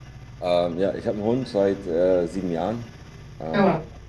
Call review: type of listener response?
listening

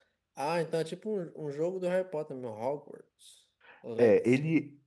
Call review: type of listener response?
taking over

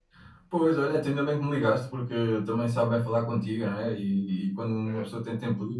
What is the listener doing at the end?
listening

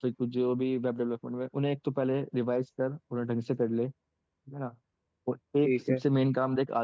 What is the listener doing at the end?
listening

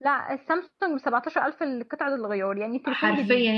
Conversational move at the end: taking over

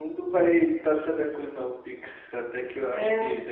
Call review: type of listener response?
listening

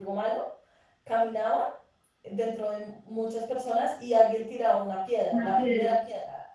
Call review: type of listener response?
listening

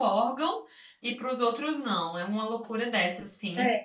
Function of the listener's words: listening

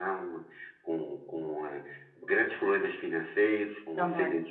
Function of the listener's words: listening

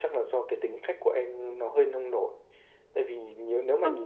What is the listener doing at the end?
listening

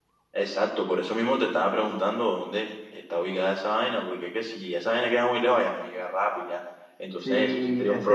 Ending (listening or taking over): taking over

